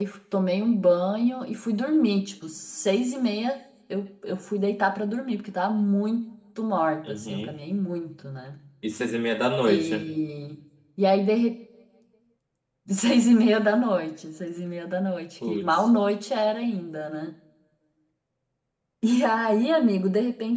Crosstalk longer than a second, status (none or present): none